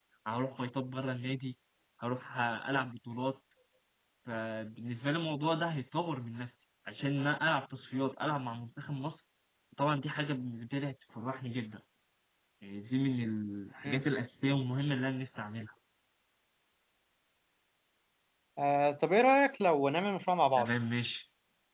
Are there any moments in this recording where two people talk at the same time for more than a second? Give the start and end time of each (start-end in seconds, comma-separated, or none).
none